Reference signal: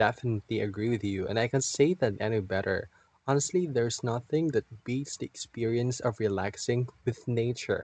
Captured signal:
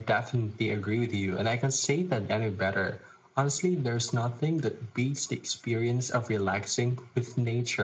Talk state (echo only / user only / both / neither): echo only